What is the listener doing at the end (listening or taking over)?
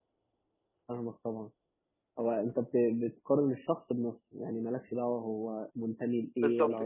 taking over